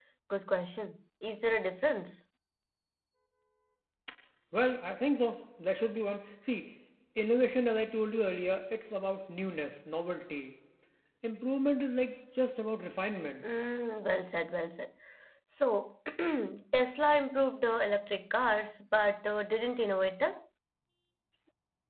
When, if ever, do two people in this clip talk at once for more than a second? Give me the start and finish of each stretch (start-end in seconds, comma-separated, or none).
none